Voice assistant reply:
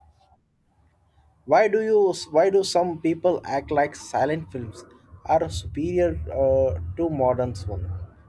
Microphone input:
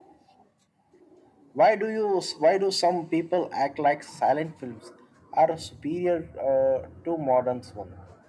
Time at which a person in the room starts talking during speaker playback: none

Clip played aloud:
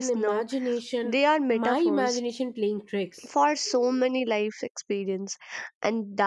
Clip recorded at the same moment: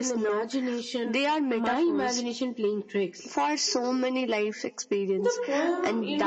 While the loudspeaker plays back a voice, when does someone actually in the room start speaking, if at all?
5.2 s

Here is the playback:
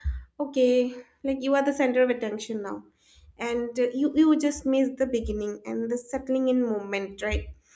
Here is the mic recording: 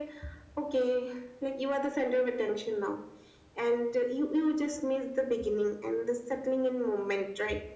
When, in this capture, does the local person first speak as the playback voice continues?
none

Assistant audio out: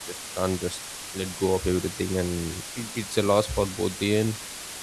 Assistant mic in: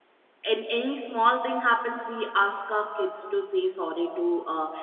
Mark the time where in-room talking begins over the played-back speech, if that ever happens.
0.5 s

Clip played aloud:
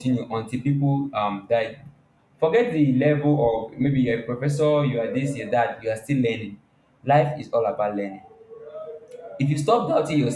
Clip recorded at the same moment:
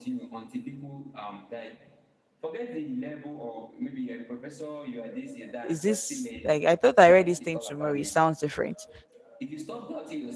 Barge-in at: 5.6 s

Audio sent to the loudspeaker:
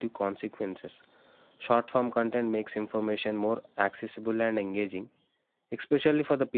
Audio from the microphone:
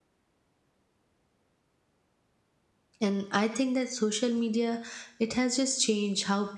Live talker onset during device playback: 3.0 s

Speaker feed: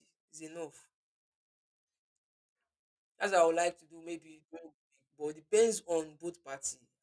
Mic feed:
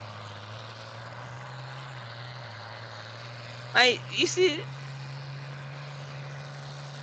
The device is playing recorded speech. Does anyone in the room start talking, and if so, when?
3.7 s

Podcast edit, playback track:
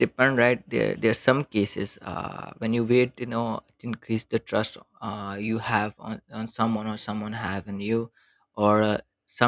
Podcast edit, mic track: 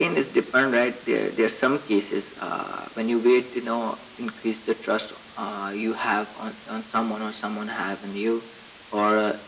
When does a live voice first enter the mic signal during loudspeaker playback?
none

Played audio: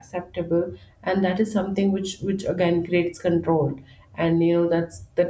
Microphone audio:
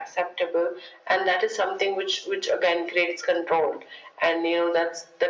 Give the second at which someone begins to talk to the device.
none

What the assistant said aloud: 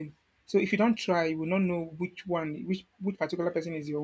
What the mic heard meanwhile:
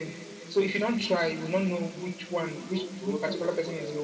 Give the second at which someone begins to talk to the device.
1.9 s

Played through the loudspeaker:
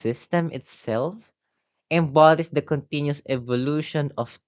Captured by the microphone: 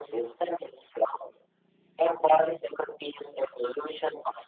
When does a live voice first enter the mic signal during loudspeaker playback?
none

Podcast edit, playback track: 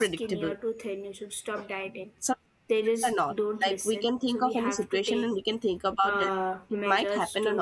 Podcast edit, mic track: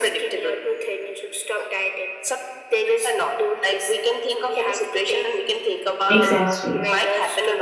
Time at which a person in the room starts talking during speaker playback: 6.1 s

